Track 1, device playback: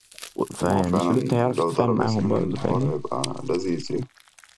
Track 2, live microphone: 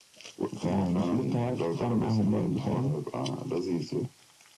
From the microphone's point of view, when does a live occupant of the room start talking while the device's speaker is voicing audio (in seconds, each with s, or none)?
none